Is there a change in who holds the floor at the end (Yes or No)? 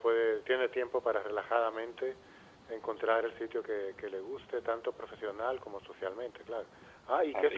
Yes